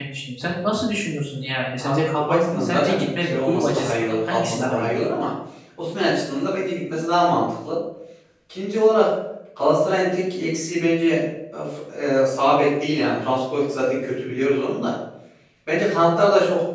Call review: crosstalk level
present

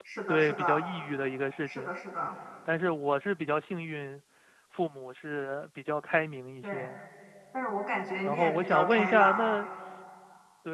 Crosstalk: present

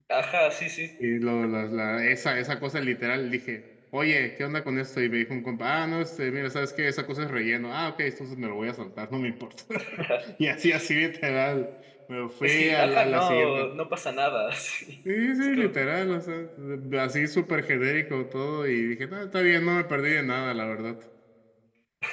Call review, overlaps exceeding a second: present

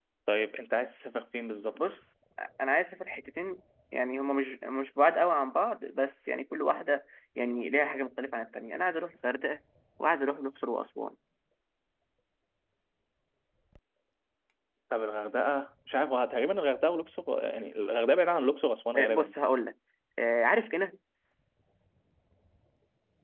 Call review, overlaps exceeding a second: none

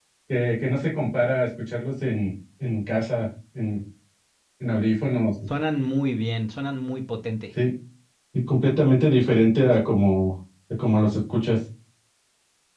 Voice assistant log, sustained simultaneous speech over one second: none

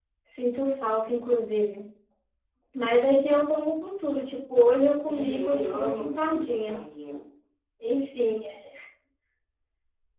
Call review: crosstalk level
present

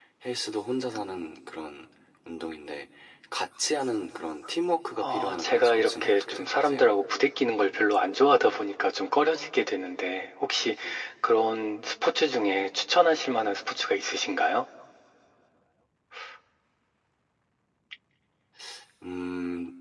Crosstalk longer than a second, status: present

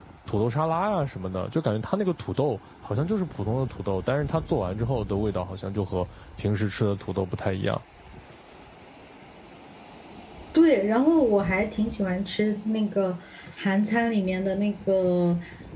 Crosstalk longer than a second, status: none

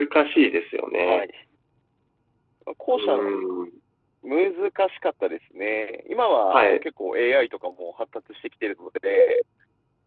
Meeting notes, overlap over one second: none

